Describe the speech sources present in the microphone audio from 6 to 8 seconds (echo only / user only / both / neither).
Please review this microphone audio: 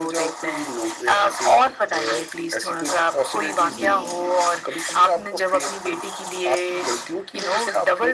echo only